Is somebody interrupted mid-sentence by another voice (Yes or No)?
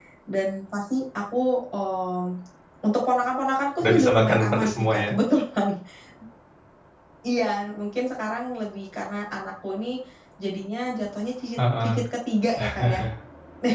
Yes